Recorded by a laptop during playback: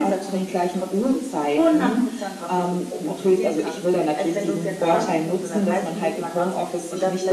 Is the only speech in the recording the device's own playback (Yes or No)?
Yes